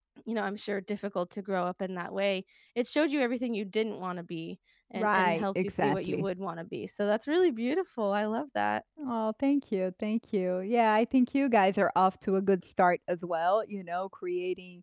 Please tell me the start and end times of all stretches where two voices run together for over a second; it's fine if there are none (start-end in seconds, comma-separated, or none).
5.0-6.2